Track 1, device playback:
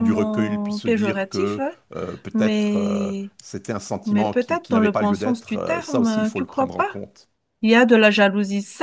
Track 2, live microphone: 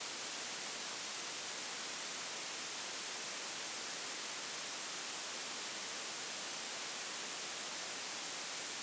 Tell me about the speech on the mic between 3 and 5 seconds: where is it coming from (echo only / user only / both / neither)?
neither